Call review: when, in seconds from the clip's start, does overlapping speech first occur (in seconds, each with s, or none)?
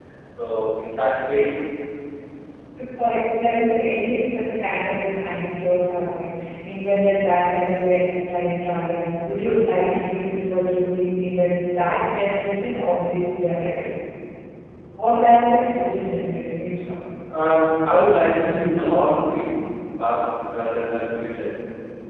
none